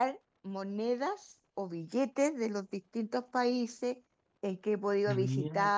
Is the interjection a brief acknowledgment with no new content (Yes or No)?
Yes